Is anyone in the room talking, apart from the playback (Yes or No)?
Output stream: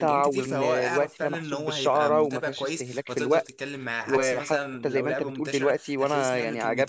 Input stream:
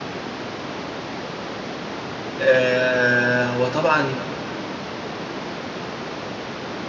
Yes